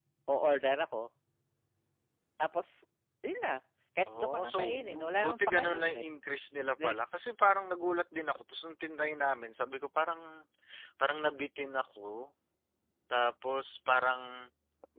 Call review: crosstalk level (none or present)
present